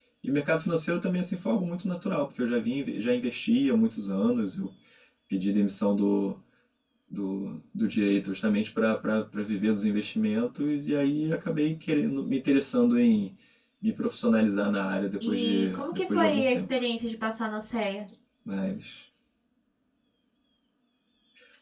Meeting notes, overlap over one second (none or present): present